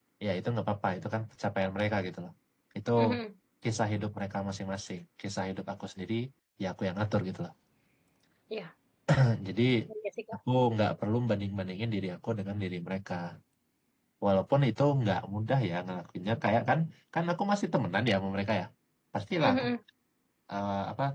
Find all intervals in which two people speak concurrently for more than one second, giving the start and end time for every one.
none

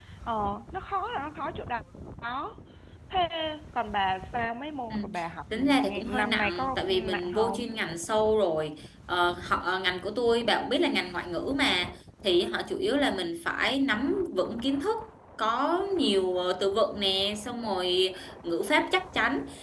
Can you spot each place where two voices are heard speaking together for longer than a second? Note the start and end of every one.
5.5-7.6

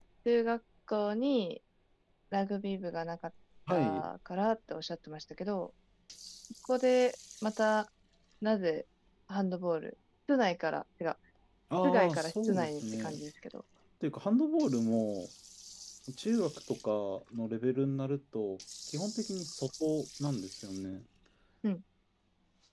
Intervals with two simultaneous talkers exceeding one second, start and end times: 11.8-13.1

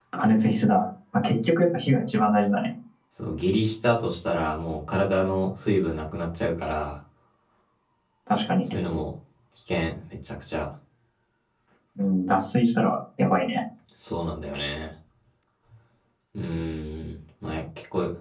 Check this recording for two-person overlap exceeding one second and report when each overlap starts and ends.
none

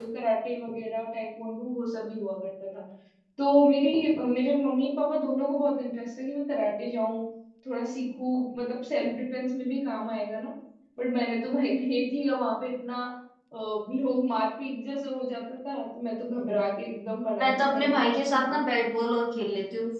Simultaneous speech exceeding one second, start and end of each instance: 17.4-18.6

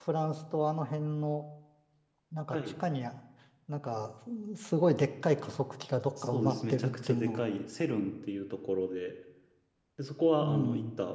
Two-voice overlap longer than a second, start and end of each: 6.2-7.4

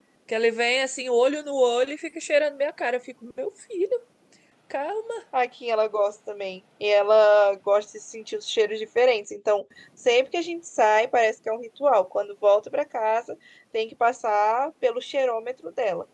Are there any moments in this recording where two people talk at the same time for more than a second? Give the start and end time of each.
none

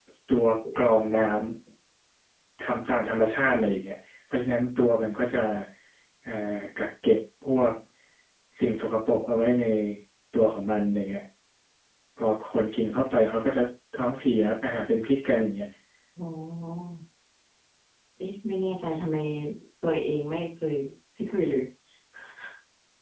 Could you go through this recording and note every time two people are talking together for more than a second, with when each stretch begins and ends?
none

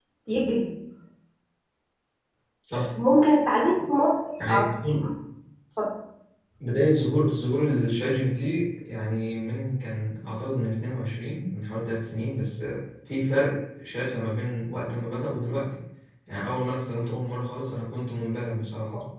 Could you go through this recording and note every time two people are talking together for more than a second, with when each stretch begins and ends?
none

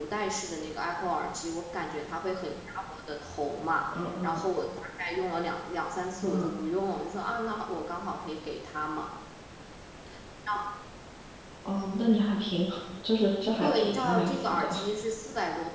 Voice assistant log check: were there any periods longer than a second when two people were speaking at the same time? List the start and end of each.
13.6-14.8

